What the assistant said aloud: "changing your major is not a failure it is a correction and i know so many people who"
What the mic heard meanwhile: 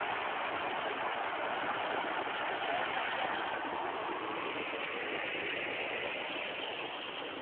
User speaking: No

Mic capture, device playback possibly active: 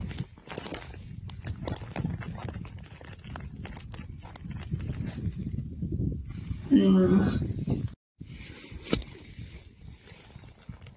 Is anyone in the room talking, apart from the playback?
Yes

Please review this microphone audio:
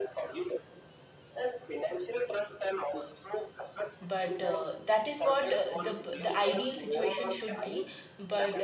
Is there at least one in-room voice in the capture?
Yes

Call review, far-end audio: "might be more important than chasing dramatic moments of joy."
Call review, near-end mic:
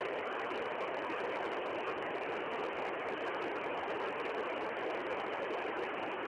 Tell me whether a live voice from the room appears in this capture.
No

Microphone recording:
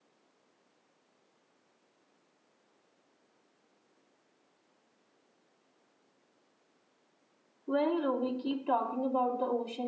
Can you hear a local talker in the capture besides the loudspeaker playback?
Yes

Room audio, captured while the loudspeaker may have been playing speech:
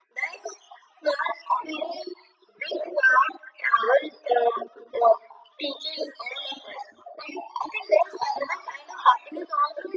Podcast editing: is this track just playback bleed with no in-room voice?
Yes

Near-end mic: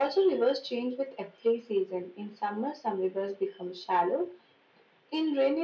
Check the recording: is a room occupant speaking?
No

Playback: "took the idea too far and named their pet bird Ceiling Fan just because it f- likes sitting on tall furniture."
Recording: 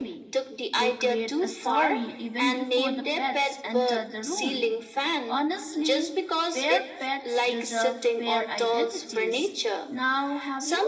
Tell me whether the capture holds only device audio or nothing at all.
No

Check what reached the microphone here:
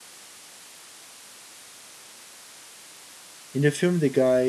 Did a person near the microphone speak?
Yes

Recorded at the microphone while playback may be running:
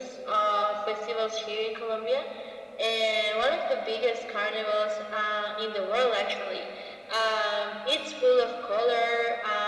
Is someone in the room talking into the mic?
No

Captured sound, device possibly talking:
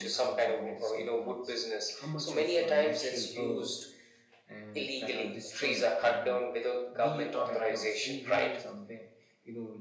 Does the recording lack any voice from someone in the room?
No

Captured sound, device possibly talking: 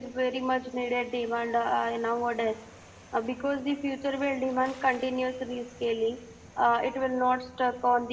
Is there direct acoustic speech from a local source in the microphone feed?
No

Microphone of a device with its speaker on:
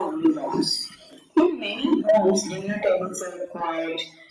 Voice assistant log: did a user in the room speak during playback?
No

